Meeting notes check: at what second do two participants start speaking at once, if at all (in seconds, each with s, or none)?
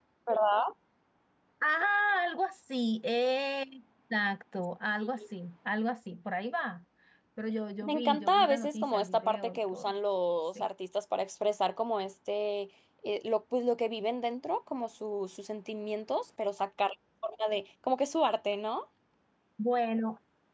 7.8 s